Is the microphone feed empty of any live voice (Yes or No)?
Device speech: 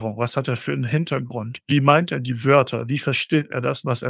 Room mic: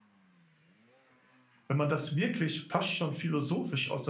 No